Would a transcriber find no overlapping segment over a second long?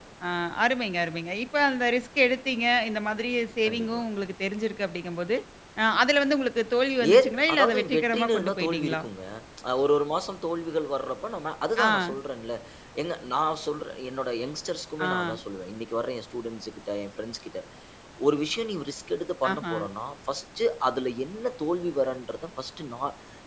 No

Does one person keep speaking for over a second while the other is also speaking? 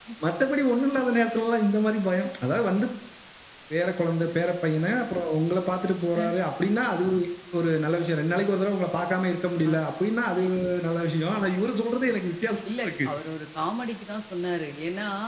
No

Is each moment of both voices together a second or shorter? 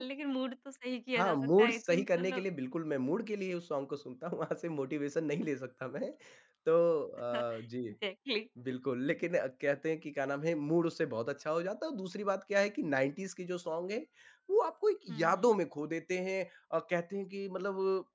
No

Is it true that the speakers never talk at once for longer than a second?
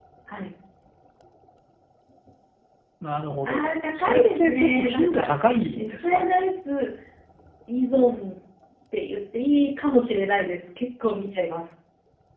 No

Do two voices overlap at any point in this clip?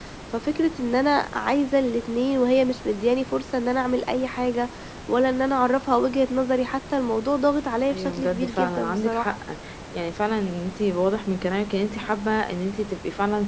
Yes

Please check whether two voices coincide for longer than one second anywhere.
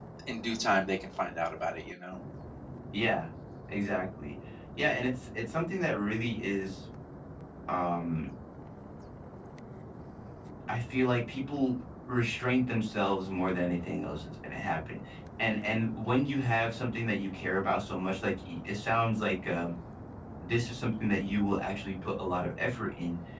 No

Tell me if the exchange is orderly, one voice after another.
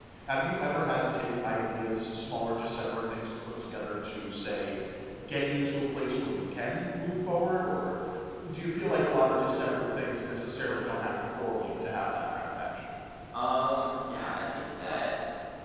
Yes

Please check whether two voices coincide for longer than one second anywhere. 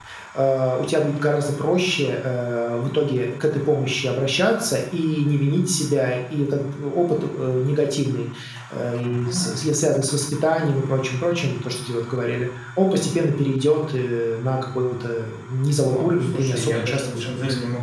Yes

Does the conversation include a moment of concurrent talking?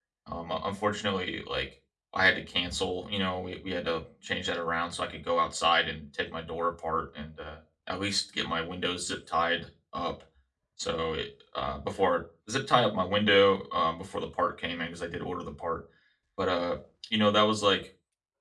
No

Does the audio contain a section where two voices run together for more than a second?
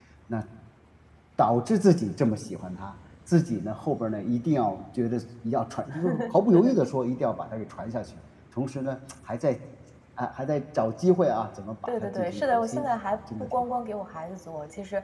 Yes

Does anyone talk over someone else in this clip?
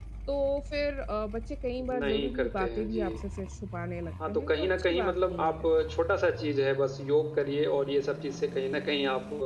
Yes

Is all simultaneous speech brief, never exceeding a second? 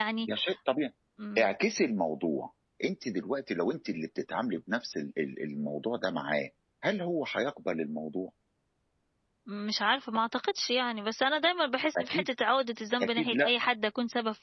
Yes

